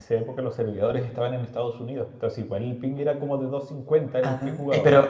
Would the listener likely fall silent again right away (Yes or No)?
No